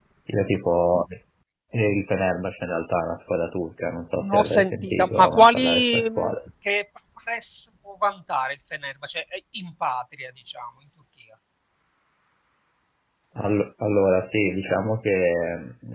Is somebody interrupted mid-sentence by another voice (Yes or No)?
Yes